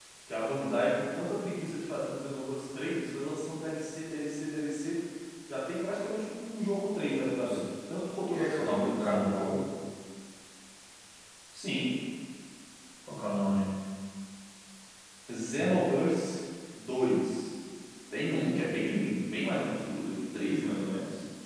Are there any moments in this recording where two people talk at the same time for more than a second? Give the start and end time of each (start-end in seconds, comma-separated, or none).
8.3-9.6